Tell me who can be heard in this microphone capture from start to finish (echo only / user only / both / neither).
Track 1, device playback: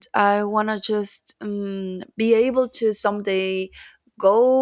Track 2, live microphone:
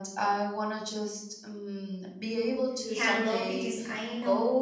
both